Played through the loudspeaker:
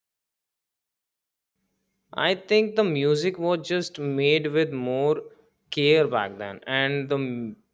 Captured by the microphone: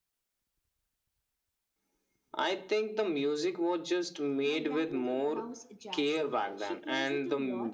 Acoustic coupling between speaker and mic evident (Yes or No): Yes